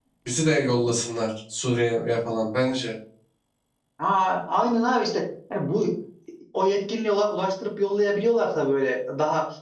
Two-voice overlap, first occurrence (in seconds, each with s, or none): none